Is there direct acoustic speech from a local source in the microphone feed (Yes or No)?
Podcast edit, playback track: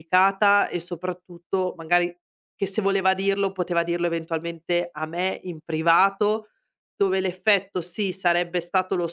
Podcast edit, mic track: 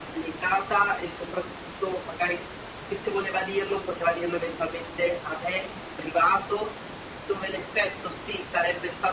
No